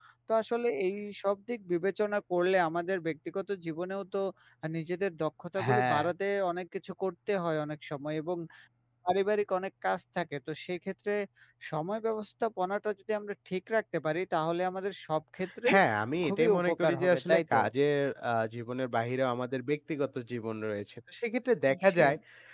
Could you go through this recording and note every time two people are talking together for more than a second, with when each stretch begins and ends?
16.2-17.6

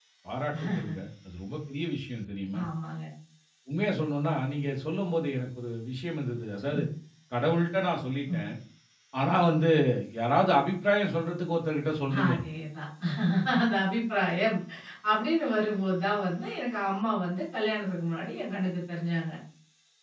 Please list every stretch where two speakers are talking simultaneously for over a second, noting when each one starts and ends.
none

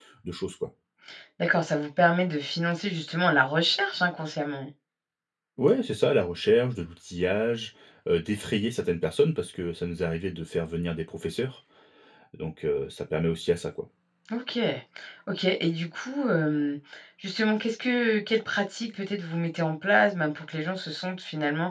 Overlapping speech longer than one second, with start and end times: none

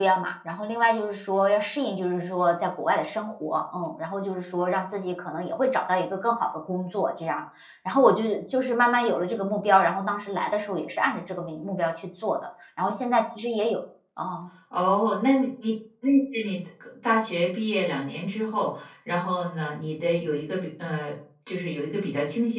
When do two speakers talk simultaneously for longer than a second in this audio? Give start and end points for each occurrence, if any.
none

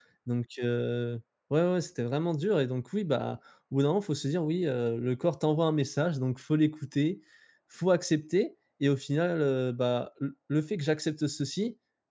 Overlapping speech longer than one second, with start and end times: none

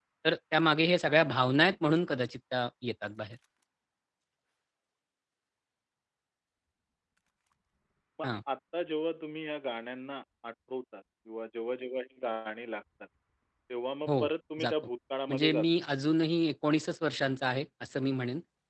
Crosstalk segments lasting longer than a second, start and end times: none

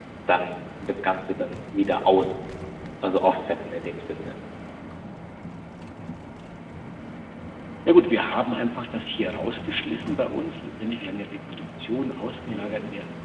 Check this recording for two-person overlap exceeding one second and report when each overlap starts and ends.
none

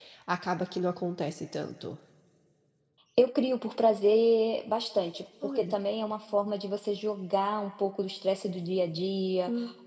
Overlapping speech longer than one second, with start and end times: none

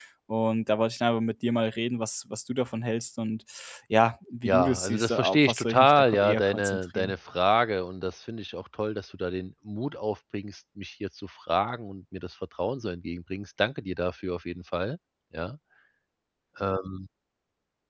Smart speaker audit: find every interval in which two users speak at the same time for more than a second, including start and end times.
4.4-7.1

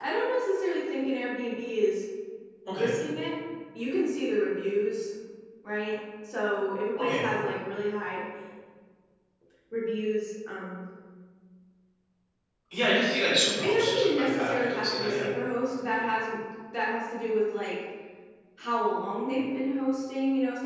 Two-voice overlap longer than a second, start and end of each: 13.6-15.3

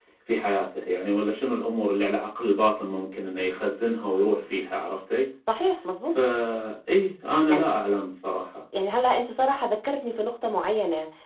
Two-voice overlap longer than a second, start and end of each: none

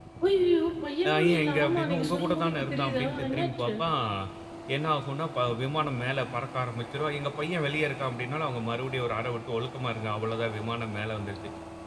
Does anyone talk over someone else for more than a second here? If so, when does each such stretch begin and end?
1.1-3.7

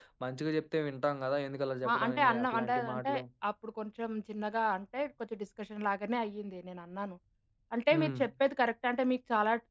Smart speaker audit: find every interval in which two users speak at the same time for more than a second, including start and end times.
1.9-3.1

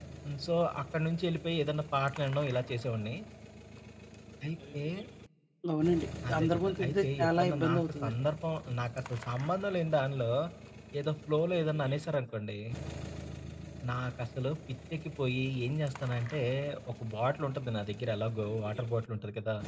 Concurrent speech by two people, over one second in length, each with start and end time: 6.3-8.1

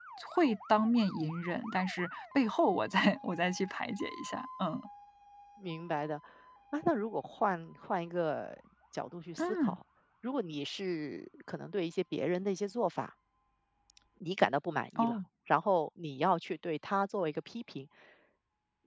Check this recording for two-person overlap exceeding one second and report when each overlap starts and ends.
none

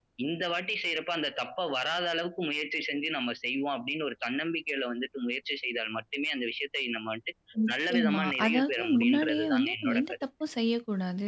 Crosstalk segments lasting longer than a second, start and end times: 7.9-10.2

